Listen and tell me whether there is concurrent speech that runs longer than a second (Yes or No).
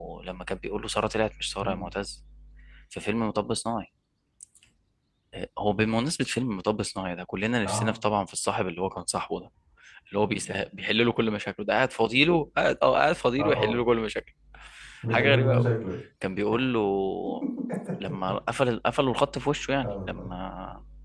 No